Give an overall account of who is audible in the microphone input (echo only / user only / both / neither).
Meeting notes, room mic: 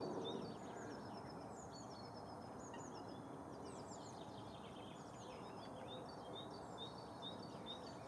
neither